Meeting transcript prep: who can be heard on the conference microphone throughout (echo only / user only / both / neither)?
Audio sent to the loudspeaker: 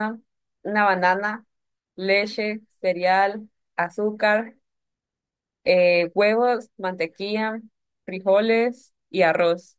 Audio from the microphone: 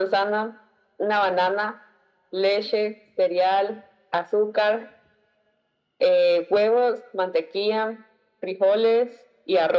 echo only